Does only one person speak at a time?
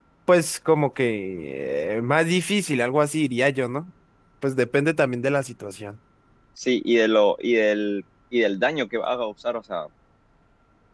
Yes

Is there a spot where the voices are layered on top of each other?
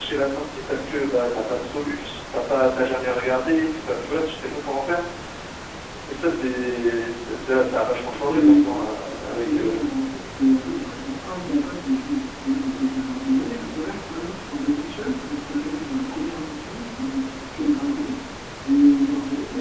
Yes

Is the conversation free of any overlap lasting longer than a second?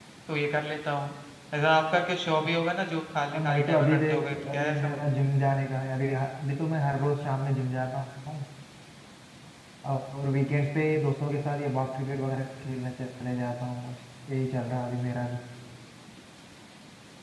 No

